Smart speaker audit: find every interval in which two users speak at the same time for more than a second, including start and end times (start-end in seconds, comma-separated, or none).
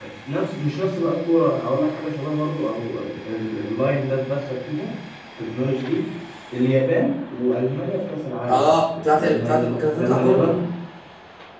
9.1-10.5